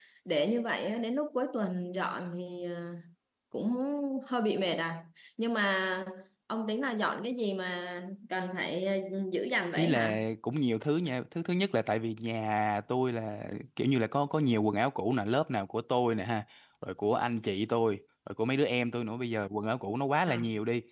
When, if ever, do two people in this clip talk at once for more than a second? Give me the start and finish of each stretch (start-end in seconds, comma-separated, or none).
none